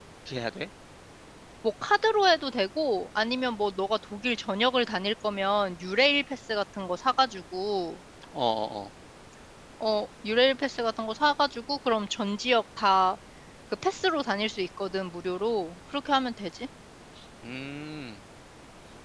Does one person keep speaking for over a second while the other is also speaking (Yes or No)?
No